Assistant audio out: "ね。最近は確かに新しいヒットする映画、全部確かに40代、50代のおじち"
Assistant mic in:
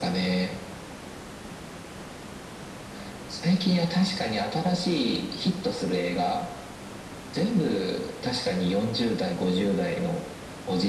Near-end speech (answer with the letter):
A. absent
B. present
A